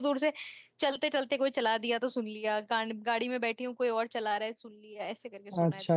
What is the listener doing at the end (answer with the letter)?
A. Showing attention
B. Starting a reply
B